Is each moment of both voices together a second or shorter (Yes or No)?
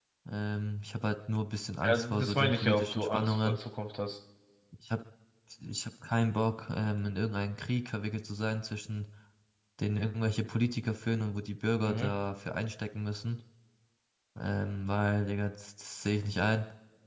No